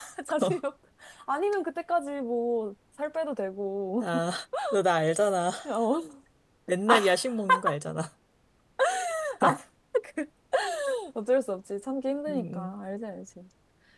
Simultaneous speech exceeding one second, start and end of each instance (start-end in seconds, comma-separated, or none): none